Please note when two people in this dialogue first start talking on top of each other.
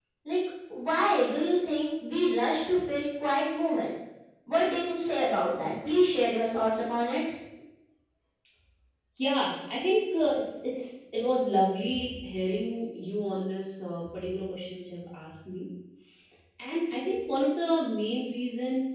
none

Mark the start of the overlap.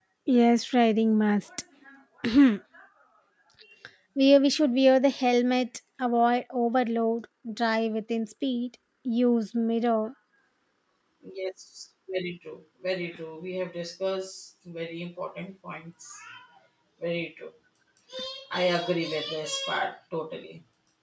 none

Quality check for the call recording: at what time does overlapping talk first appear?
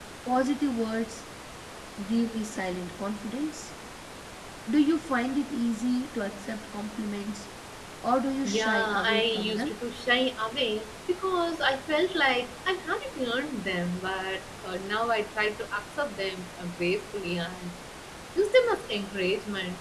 8.4 s

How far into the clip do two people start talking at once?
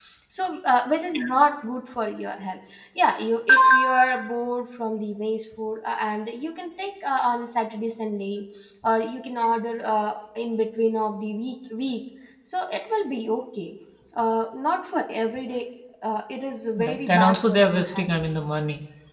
16.8 s

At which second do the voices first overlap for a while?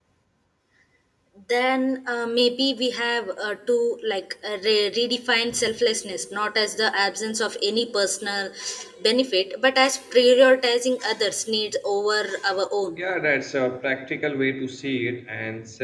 none

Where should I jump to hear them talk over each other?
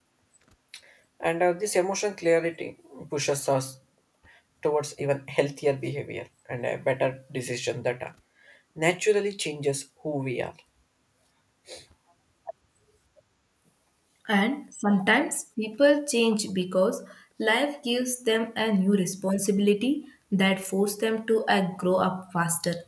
none

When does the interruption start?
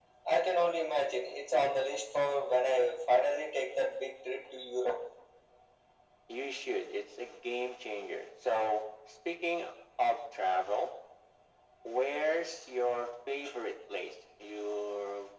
none

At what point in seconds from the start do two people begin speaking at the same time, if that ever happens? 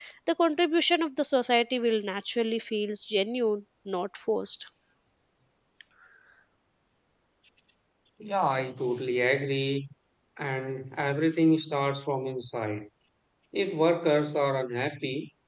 none

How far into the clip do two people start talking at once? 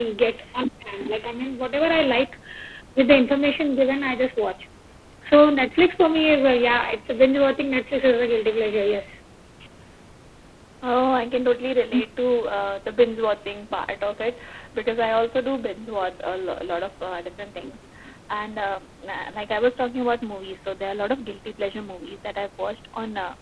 none

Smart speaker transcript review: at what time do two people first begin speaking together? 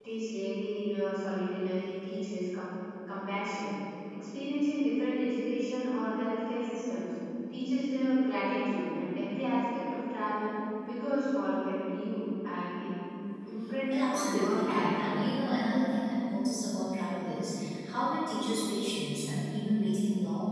13.9 s

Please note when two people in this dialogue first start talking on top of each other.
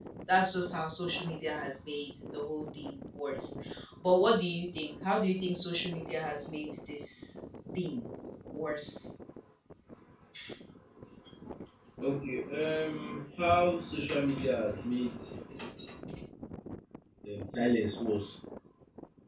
none

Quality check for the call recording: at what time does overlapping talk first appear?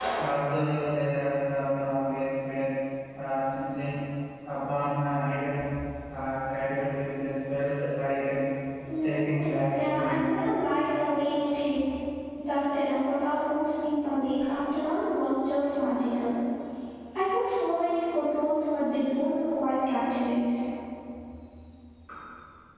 9.0 s

